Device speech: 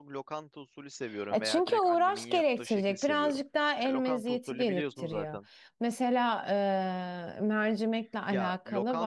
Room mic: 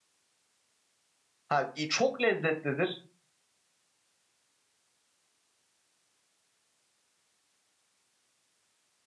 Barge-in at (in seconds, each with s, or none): 1.5 s